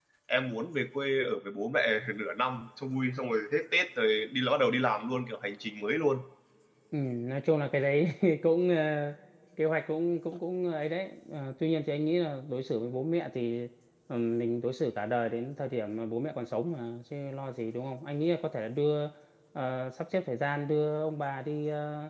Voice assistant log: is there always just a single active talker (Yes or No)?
Yes